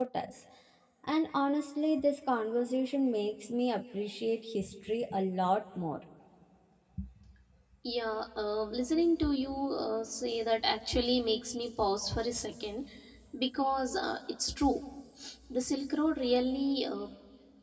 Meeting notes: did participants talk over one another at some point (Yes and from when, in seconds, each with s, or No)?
No